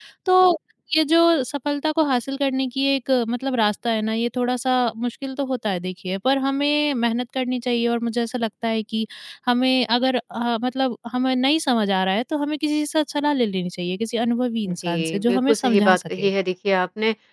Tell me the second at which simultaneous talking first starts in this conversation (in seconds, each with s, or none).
14.7 s